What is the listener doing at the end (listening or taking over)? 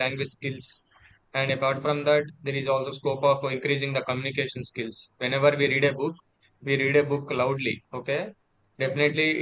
listening